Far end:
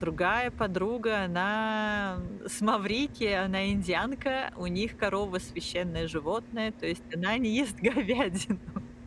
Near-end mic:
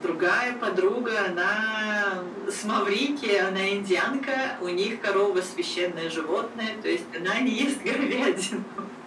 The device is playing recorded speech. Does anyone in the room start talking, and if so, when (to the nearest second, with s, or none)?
none